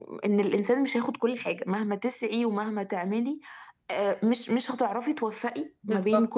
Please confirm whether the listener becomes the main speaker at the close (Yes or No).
No